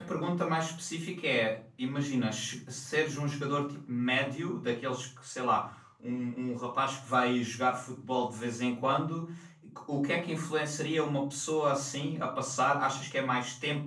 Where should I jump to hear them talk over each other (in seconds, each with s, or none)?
none